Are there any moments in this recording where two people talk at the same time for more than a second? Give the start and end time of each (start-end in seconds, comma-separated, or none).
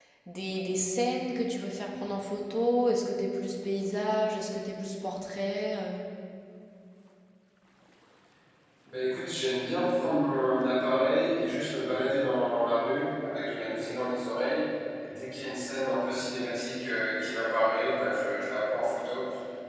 none